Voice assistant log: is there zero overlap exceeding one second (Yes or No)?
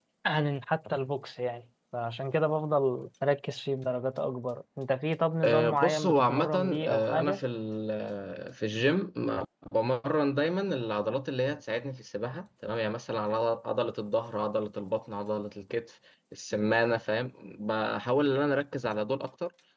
No